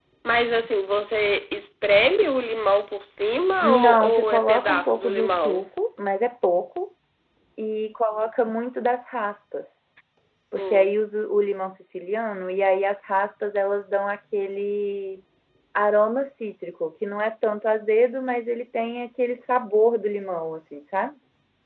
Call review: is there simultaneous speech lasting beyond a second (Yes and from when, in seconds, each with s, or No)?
Yes, from 3.6 s